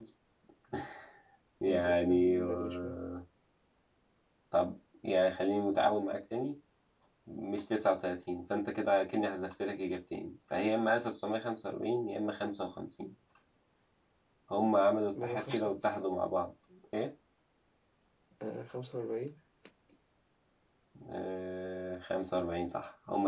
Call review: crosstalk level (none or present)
present